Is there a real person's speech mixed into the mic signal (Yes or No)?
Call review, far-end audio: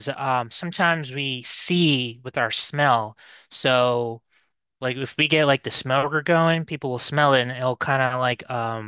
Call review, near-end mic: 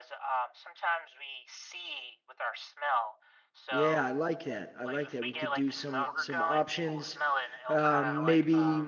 Yes